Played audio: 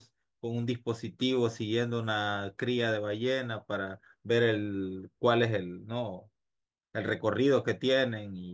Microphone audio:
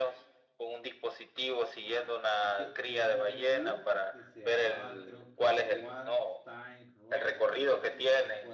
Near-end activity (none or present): present